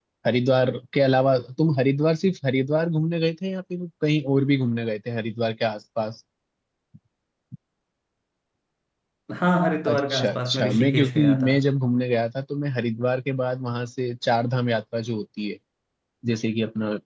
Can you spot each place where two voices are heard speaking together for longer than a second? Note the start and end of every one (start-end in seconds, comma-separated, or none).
9.9-11.5